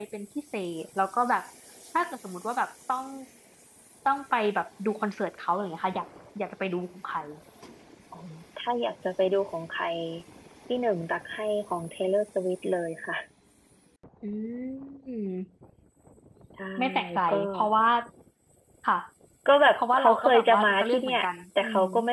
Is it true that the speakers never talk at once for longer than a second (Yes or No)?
No